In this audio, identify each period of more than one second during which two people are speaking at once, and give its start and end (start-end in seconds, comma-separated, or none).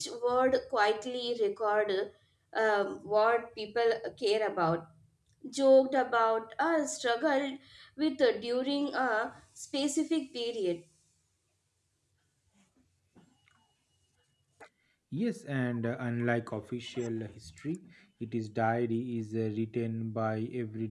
none